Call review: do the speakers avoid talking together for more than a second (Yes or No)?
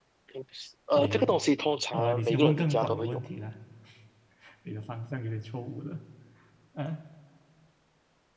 No